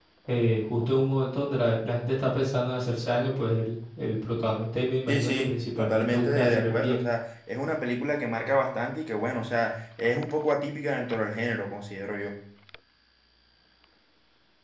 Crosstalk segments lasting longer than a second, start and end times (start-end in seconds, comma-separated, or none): 5.1-7.0